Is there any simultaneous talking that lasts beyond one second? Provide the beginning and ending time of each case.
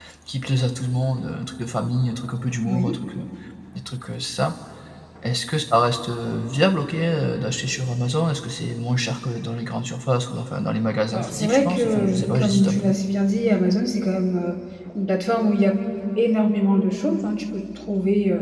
11.1-12.9

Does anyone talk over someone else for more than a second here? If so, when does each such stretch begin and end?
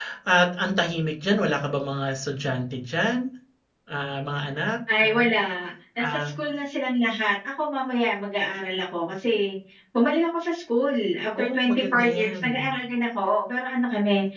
11.4-12.7

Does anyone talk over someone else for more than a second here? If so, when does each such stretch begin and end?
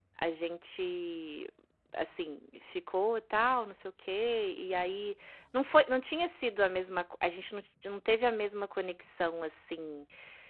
none

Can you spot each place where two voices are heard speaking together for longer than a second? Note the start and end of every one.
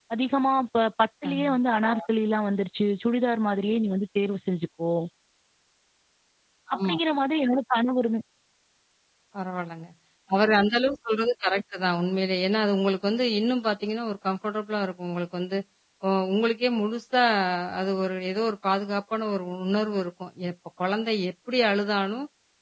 none

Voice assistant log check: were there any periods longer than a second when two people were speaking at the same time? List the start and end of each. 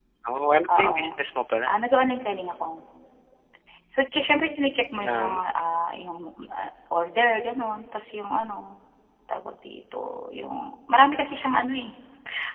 none

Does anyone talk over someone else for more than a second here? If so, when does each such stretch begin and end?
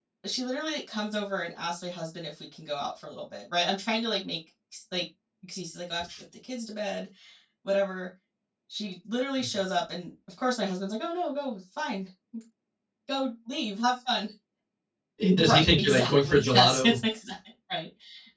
15.4-17.0

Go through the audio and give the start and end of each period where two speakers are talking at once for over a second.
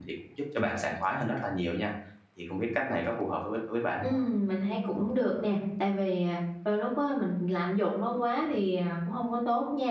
none

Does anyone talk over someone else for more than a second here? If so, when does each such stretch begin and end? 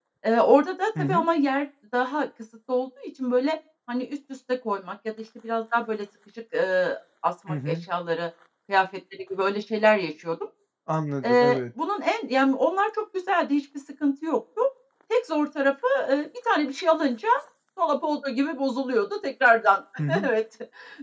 none

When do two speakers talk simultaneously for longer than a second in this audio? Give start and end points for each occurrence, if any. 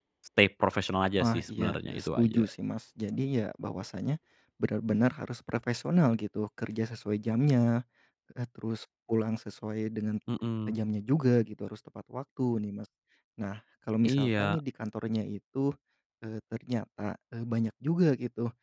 1.2-2.5

